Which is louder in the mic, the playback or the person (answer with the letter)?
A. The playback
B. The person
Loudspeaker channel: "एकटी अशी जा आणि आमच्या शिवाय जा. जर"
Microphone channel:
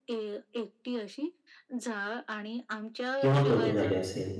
B